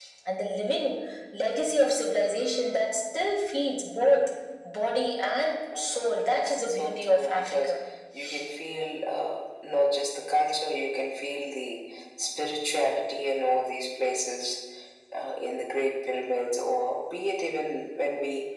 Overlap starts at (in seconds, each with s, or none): 5.7 s